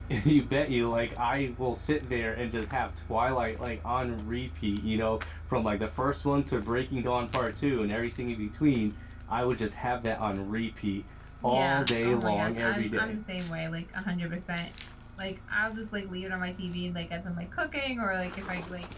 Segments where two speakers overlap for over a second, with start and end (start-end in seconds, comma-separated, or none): 11.4-13.2